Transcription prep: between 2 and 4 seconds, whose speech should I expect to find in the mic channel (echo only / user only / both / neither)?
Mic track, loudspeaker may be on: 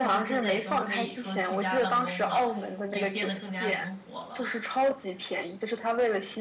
both